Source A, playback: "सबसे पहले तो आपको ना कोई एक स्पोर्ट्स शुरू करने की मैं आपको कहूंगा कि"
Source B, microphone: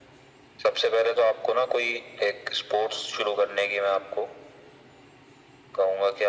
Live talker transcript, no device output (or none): none